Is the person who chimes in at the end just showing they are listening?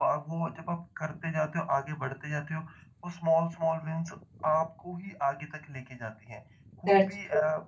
Yes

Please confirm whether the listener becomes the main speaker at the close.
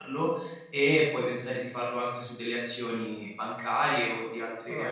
Yes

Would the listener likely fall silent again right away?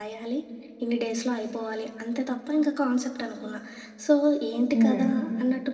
Yes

